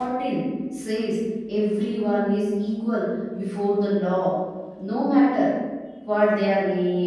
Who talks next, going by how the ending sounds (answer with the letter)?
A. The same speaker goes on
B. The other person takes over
A